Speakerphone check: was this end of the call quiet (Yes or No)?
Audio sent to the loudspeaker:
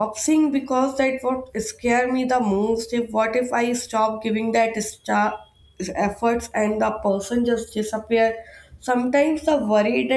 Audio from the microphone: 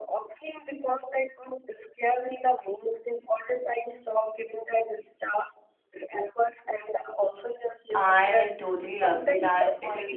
No